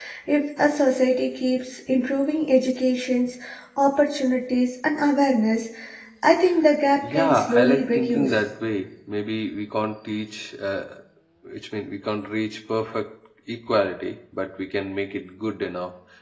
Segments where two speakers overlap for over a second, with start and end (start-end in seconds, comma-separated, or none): 7.1-8.3